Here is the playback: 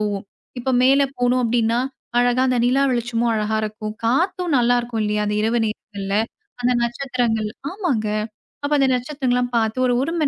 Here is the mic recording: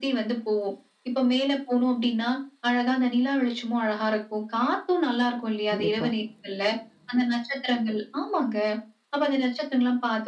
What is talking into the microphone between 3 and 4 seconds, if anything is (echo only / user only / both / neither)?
echo only